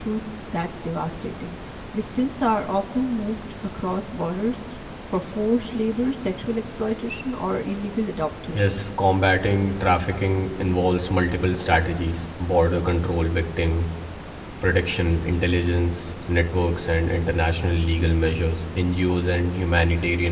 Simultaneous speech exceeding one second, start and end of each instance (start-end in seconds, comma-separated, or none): none